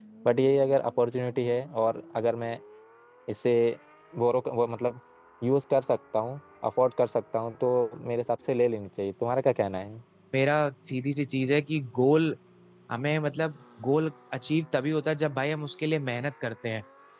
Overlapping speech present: No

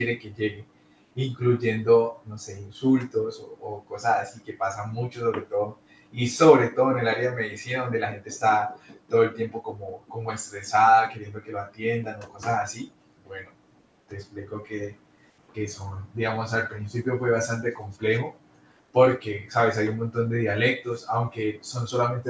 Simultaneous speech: No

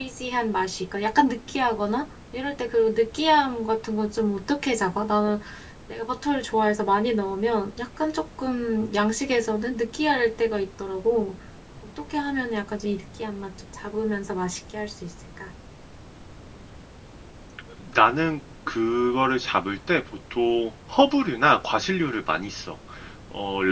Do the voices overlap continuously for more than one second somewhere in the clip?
No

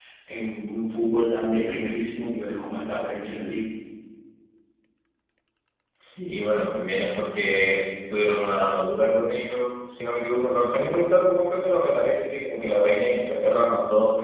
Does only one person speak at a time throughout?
Yes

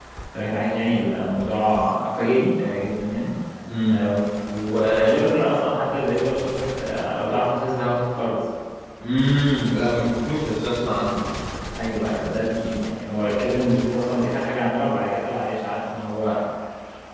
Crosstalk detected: No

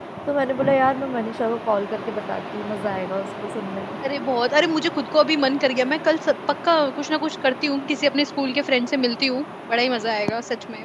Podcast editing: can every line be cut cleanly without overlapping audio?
Yes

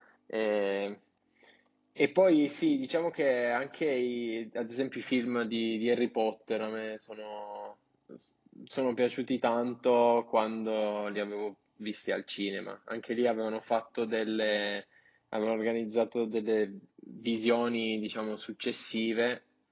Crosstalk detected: No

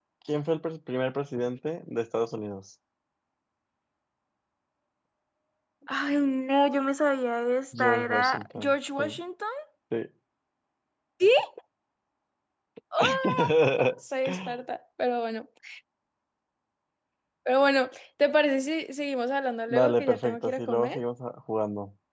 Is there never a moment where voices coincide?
No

